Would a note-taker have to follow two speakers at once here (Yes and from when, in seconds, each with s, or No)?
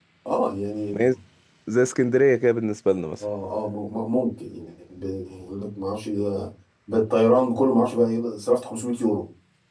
No